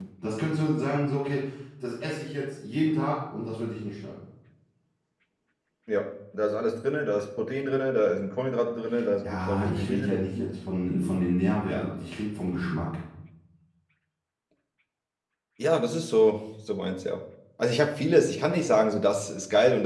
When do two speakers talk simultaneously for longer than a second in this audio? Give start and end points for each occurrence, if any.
9.2-10.5

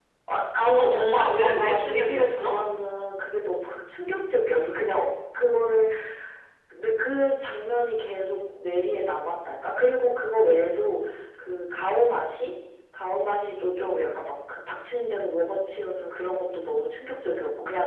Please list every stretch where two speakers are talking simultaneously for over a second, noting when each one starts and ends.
0.6-2.6

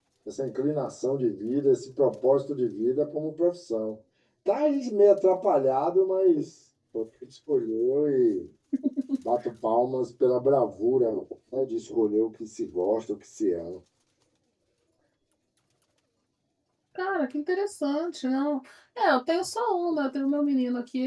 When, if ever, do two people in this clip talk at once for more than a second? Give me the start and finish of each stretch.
none

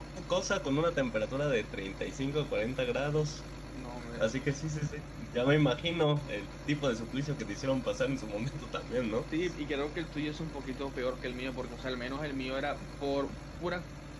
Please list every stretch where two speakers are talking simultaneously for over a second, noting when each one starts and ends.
none

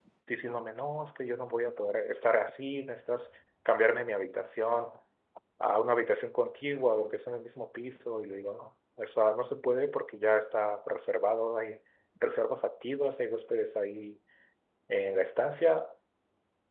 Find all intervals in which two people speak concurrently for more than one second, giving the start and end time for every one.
none

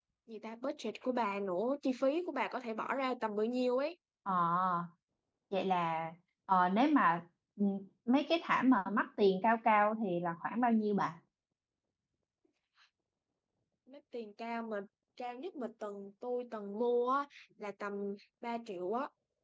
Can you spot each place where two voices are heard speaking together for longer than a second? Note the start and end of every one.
none

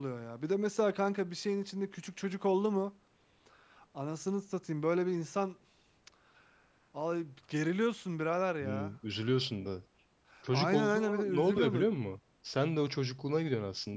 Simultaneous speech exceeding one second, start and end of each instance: 10.5-11.9

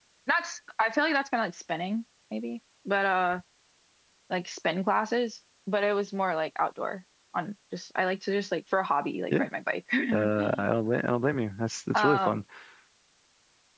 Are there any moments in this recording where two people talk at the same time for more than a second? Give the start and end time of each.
none

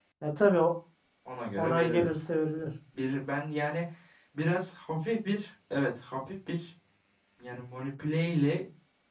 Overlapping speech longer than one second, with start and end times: none

